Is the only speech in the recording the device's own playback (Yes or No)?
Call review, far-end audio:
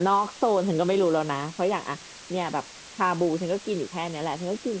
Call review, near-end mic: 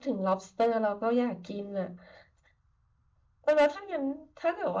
No